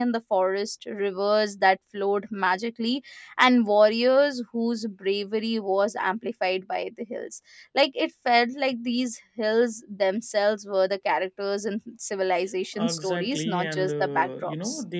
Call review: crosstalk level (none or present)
present